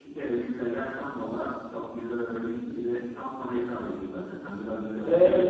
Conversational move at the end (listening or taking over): taking over